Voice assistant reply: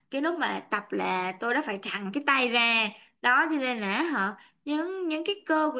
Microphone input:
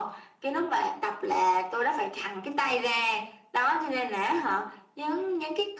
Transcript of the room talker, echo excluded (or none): none